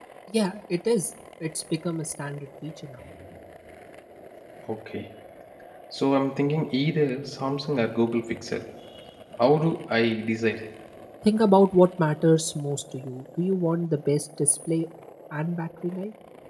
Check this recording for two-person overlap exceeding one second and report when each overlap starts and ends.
none

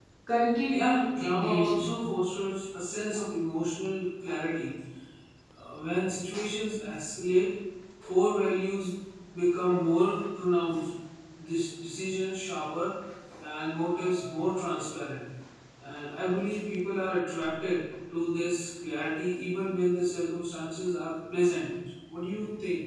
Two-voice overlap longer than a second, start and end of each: 0.7-1.9

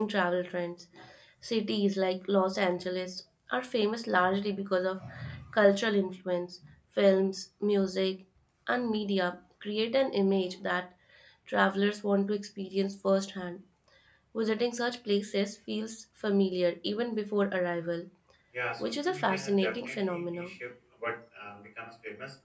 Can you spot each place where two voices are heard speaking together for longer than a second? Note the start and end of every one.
18.8-20.5

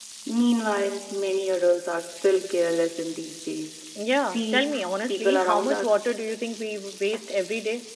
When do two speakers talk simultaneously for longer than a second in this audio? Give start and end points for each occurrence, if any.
4.2-6.0

